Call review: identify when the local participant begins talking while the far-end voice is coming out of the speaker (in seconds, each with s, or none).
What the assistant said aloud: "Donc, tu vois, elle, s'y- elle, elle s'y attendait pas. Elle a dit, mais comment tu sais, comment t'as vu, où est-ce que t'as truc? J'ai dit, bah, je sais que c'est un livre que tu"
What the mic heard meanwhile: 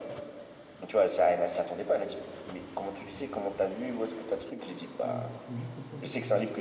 5.0 s